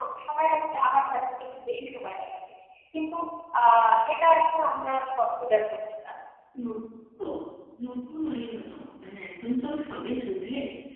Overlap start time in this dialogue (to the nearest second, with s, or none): none